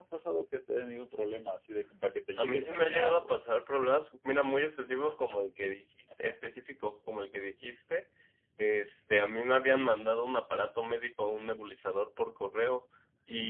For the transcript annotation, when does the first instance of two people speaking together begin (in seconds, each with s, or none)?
2.3 s